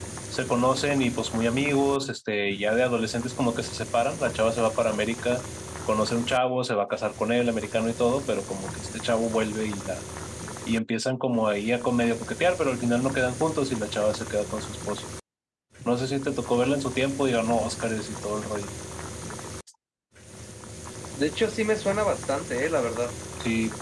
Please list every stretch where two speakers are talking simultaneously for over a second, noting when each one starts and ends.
none

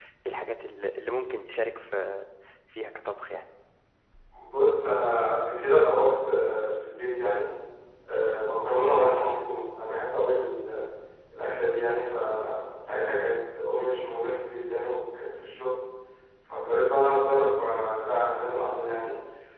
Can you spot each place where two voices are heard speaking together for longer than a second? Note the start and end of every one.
none

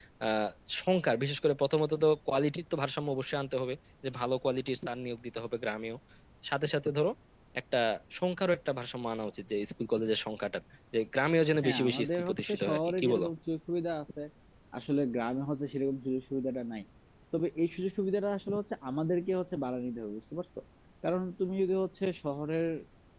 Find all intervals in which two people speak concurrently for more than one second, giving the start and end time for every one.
11.6-13.3

